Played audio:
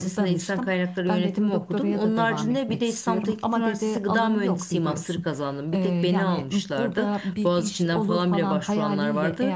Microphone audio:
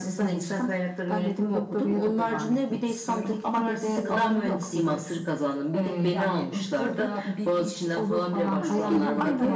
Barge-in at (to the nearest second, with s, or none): 9 s